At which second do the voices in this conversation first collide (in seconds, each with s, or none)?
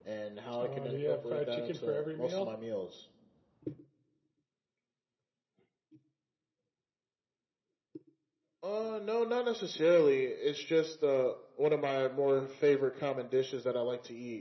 0.6 s